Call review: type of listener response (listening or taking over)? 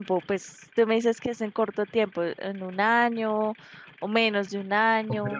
taking over